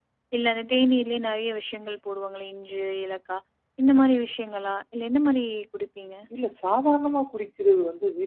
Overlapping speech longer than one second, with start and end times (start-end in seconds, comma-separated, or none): none